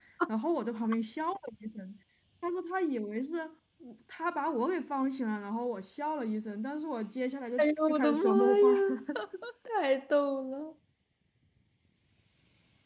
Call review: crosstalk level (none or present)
present